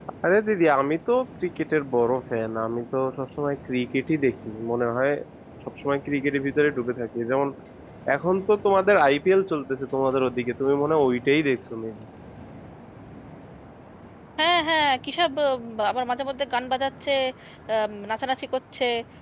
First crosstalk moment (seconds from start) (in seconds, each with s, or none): none